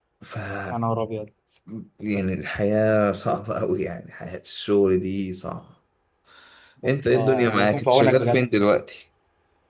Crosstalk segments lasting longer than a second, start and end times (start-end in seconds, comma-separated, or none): 6.9-8.4